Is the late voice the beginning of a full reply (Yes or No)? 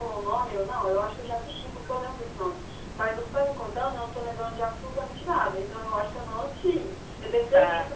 No